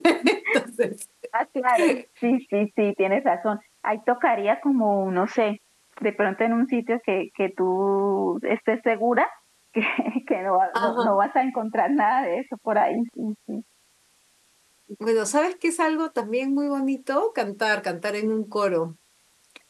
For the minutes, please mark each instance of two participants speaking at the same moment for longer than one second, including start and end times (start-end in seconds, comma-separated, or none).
none